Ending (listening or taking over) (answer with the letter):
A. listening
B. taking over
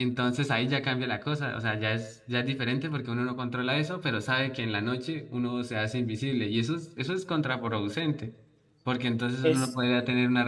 A